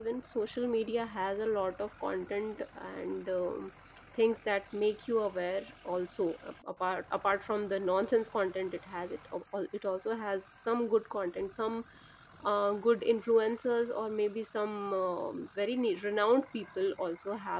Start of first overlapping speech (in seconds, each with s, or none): none